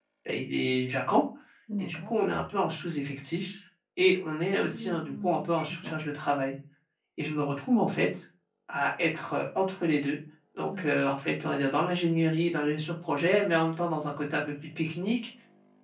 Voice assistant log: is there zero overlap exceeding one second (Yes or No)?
No